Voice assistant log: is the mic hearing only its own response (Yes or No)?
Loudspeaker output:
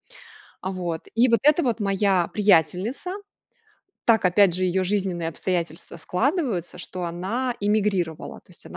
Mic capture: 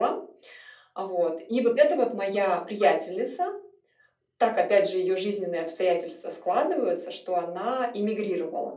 Yes